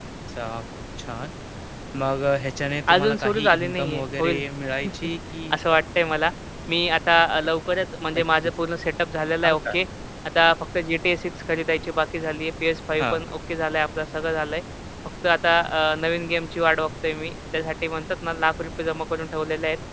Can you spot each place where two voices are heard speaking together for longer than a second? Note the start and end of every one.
2.9-4.4

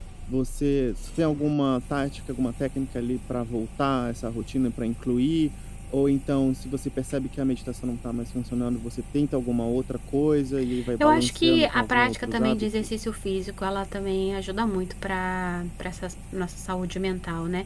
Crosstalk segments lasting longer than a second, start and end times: 11.0-12.9

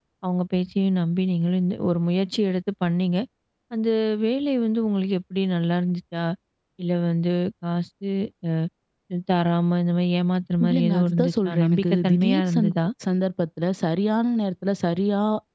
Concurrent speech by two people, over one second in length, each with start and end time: 10.6-12.7

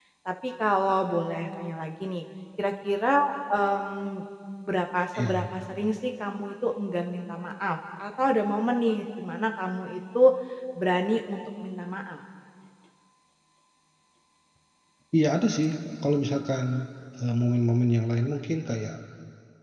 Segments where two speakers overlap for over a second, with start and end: none

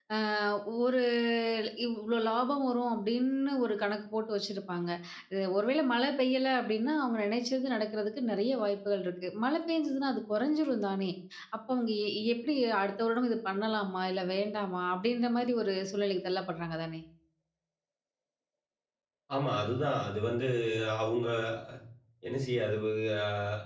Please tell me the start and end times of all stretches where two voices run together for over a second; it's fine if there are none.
none

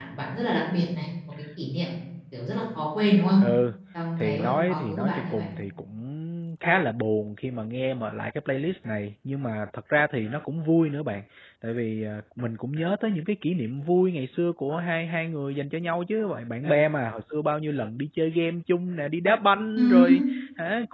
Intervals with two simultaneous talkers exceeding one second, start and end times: 4.2-5.4

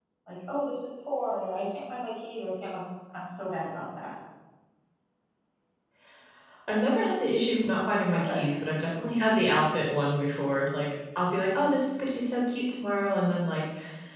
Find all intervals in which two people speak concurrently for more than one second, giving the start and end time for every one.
none

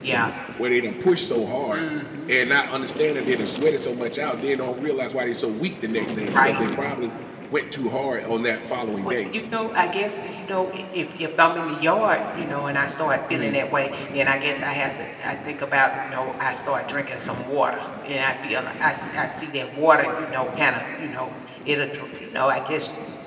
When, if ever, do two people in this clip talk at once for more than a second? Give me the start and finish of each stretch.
none

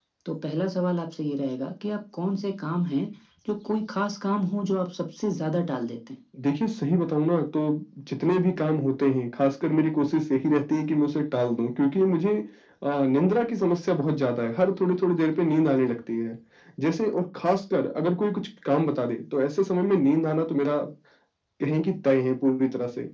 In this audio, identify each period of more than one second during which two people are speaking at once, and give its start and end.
none

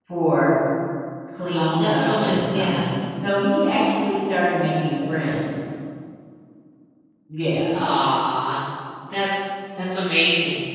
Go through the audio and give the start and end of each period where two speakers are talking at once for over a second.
1.5-2.8

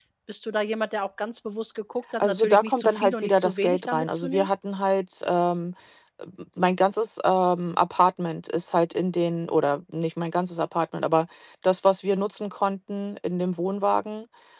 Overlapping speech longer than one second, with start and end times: 2.2-4.5

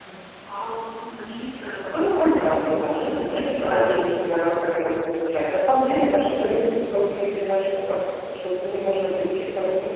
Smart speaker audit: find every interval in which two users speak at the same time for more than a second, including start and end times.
2.8-4.2

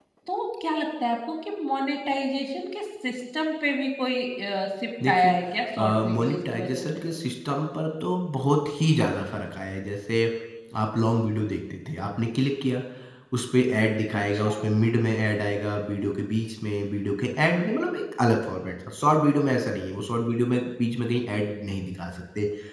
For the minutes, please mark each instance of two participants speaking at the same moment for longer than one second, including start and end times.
5.8-7.0

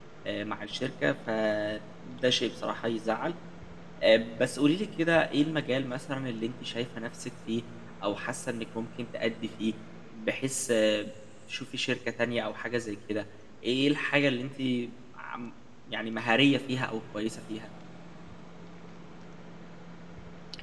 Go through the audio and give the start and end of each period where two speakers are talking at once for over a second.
none

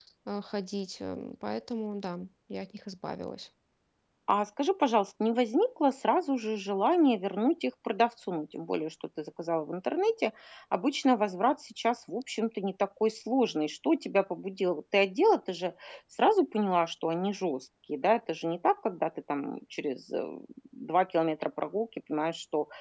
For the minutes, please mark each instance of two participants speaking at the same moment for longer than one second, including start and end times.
none

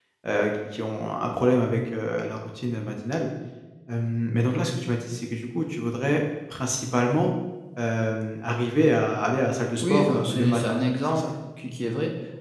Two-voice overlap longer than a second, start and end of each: 9.8-11.3

